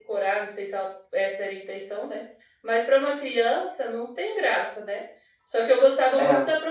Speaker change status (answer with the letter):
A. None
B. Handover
A